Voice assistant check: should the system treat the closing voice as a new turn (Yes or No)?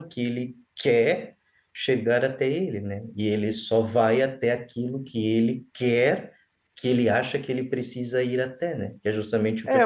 Yes